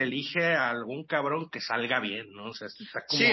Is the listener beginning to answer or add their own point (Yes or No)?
Yes